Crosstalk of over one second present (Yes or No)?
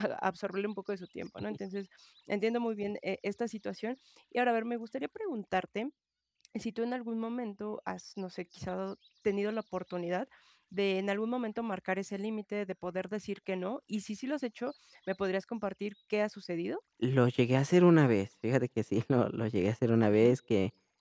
No